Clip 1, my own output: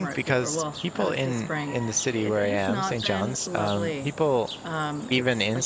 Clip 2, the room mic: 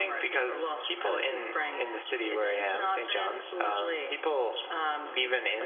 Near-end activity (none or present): none